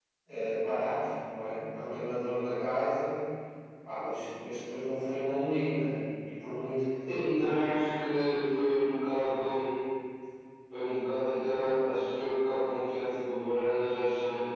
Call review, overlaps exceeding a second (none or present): none